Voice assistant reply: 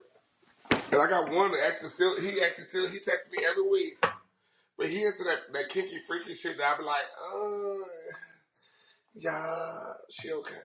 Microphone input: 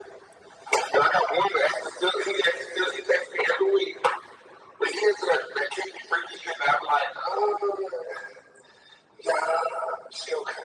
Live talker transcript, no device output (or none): none